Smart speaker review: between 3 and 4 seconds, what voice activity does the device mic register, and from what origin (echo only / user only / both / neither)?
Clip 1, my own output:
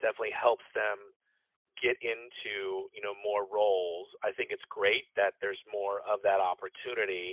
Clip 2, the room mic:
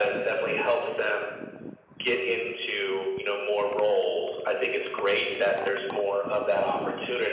echo only